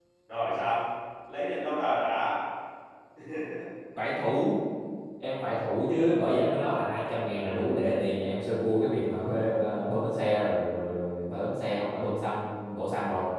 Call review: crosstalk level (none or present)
none